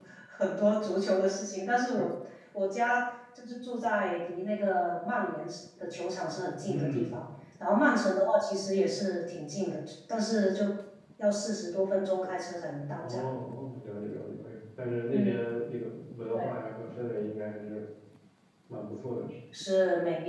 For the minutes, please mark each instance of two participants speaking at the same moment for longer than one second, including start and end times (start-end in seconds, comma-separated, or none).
none